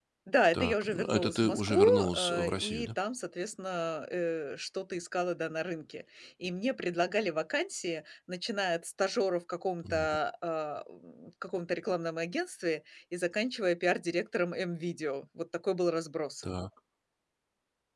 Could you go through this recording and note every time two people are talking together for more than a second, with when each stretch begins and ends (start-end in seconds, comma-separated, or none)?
0.5-2.9